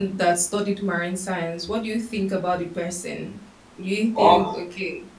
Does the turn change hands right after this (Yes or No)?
No